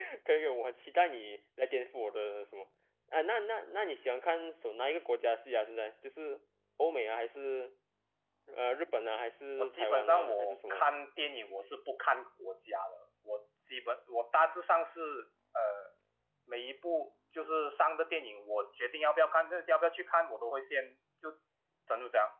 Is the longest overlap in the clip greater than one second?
Yes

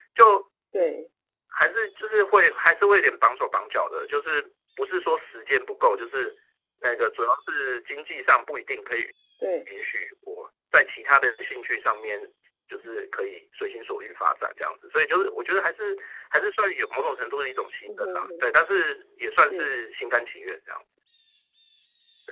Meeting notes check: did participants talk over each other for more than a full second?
No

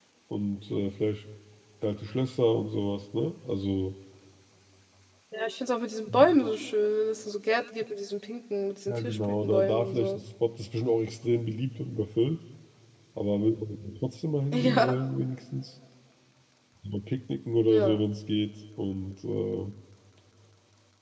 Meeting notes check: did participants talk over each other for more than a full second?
Yes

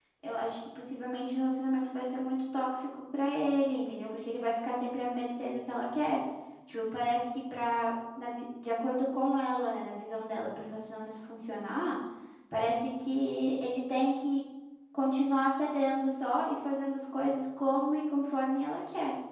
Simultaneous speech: No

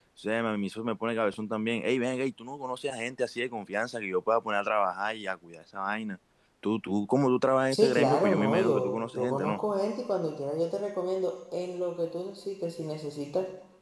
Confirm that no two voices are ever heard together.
No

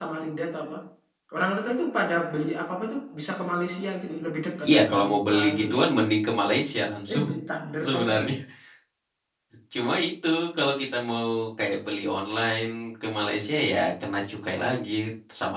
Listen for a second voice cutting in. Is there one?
Yes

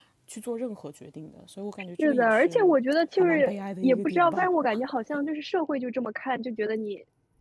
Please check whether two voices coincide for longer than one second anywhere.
Yes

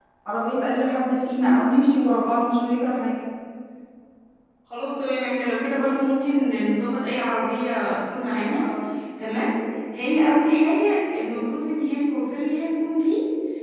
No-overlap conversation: Yes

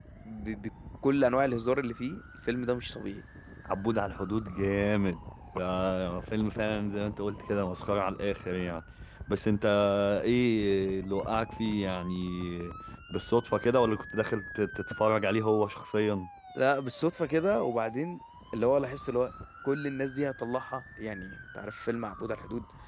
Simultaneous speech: No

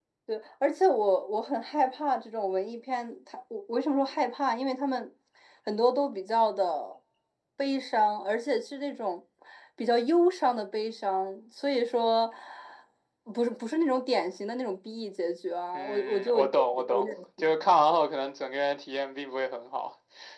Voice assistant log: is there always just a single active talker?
No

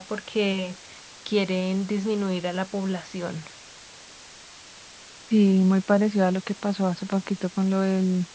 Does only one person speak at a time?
Yes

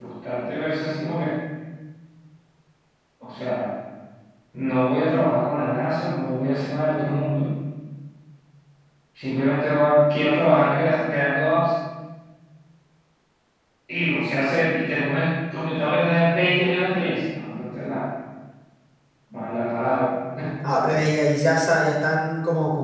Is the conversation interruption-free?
Yes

